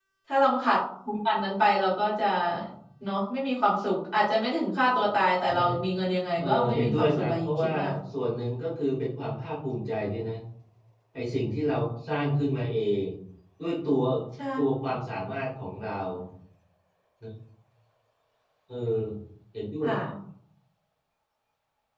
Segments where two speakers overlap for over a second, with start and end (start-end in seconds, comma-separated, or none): 6.4-7.7